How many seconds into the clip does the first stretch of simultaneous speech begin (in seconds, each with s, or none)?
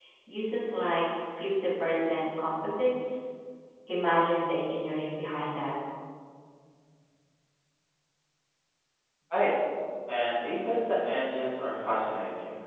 none